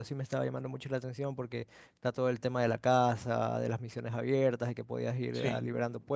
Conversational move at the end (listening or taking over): listening